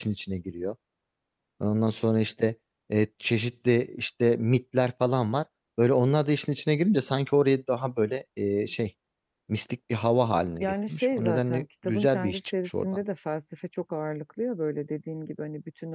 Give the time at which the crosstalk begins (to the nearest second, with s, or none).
11 s